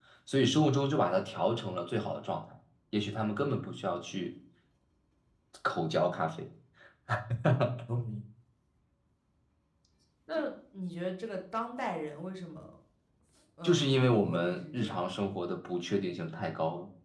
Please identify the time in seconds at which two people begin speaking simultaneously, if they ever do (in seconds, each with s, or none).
13.6 s